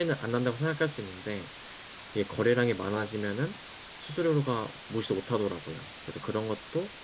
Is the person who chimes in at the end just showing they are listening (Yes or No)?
Yes